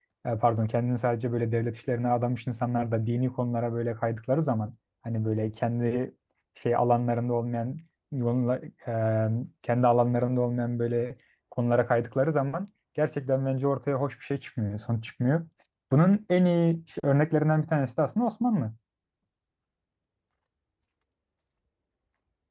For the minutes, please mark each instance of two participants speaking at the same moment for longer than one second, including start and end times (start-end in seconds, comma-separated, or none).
none